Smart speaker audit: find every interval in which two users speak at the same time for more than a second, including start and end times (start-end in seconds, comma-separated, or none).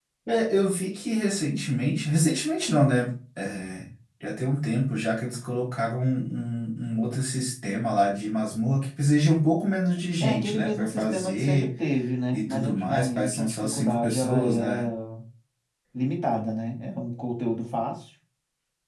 10.2-11.7, 12.3-14.9